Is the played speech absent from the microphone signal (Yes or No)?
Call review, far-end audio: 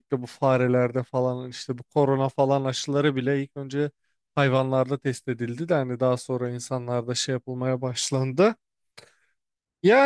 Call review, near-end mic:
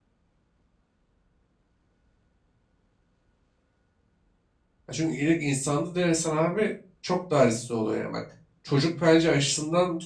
Yes